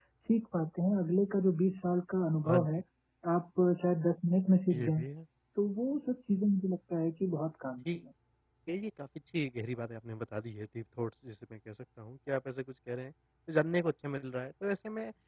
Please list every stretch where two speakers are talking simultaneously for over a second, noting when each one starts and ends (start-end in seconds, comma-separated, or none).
none